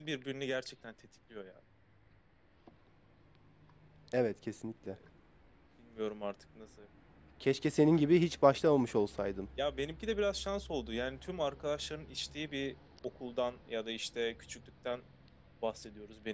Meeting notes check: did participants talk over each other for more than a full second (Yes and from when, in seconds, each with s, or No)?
No